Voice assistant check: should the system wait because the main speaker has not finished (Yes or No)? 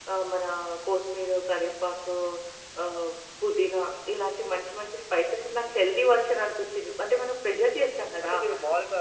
No